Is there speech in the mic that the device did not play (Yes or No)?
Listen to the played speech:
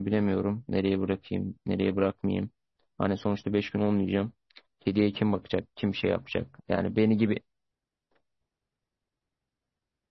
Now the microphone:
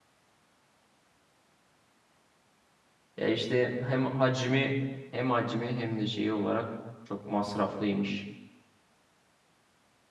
Yes